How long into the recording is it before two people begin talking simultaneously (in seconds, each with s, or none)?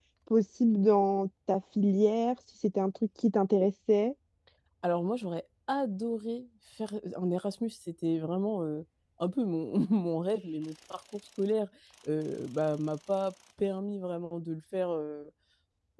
none